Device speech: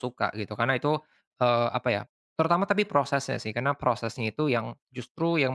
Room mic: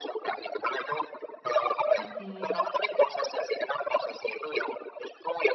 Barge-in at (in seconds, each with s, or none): 2.0 s